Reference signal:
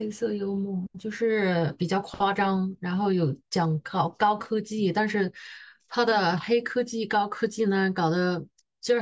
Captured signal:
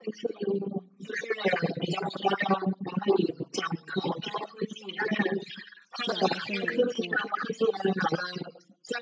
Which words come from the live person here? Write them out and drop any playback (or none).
讲的是哪一部了。